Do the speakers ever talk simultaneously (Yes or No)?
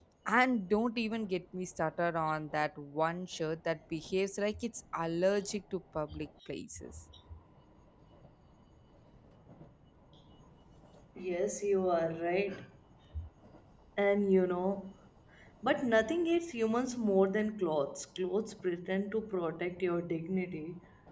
No